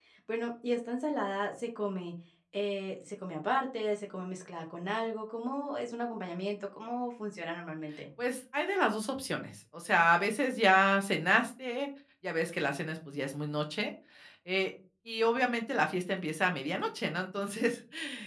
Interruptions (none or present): none